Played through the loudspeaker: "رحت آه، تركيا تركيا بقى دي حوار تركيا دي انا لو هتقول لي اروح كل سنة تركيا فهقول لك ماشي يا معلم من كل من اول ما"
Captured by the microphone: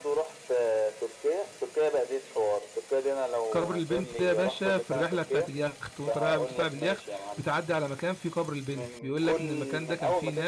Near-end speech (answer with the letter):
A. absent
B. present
B